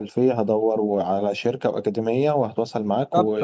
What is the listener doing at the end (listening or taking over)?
taking over